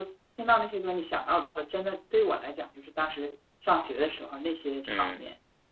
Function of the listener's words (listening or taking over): taking over